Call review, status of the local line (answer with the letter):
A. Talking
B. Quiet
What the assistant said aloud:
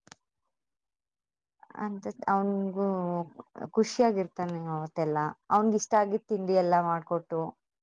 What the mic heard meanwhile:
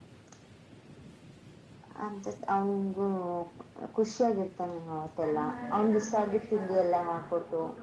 A